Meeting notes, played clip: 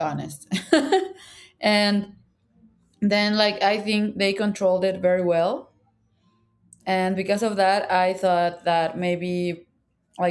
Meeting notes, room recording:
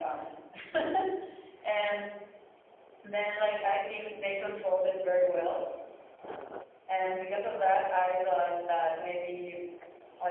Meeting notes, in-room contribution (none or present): none